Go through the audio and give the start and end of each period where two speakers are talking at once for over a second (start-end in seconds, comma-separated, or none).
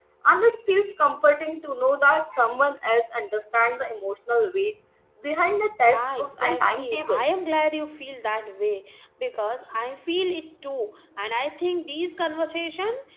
5.9-7.2